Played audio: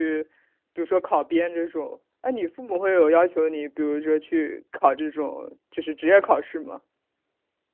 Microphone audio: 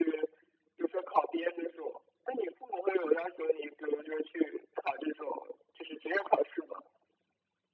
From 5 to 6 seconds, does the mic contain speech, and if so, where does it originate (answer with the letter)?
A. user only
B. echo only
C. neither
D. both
B